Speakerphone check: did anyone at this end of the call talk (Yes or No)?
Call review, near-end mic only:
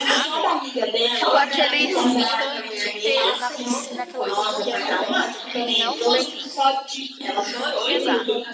Yes